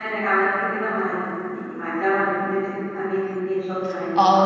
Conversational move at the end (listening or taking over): taking over